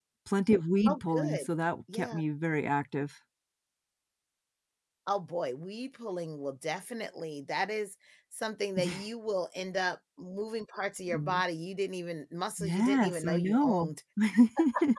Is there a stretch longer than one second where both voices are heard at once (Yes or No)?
Yes